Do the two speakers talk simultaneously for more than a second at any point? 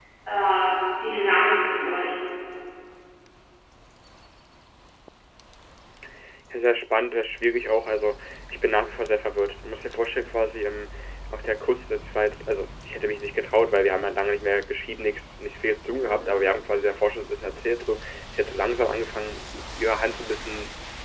No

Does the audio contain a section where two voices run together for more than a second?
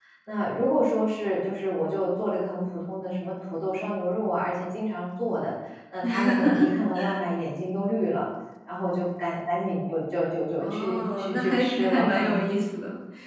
Yes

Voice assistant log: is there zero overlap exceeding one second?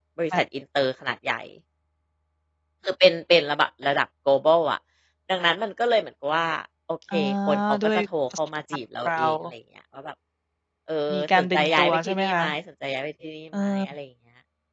No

